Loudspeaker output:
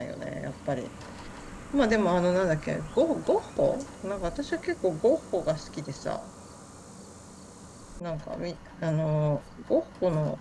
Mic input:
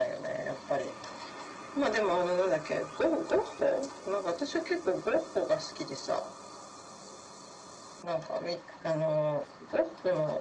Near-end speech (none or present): none